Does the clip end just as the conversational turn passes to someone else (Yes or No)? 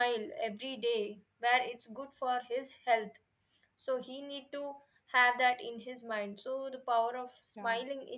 No